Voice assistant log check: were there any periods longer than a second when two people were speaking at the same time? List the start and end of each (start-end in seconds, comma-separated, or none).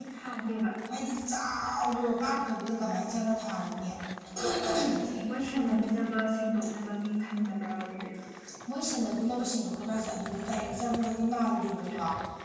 none